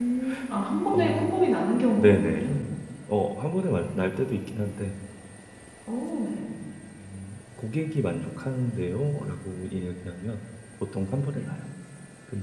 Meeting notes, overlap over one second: none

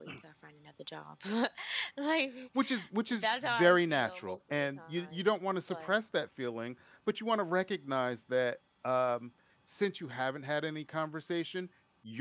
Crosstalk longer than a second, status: present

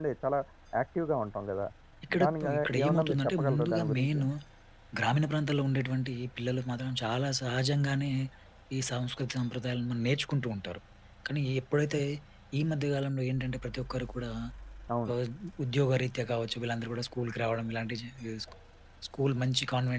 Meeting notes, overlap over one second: present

